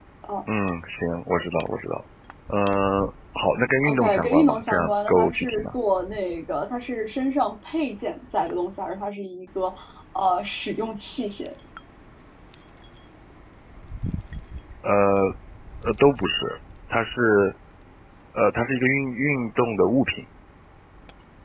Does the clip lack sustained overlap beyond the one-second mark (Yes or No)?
No